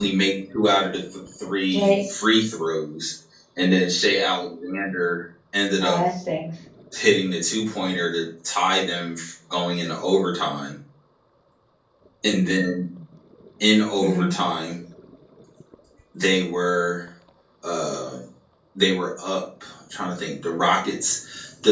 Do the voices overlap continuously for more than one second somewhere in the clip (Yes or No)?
No